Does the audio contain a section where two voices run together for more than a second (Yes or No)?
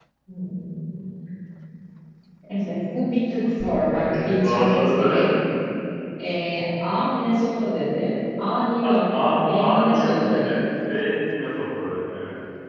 Yes